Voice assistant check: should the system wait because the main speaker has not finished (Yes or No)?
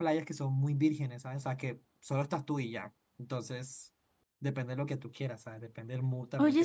No